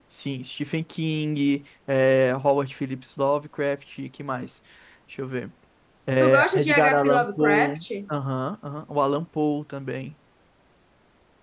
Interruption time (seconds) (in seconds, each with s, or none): 6.2 s